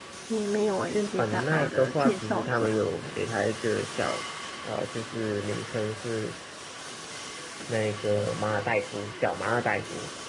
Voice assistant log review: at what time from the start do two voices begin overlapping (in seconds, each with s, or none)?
0.8 s